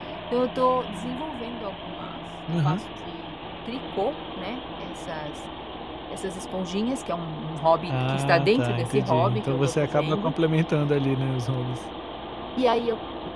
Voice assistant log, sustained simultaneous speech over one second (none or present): present